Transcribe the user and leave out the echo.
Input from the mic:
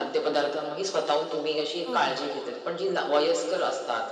हो, हो.

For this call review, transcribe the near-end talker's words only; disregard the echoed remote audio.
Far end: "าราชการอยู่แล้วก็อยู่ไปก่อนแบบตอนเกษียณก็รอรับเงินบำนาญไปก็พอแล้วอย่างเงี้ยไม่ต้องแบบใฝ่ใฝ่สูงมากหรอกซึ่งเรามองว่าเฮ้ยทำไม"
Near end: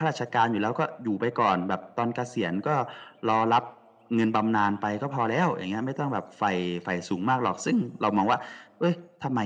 none

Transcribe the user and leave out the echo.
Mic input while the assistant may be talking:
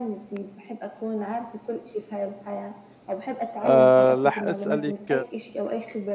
آآ راح أسألِك

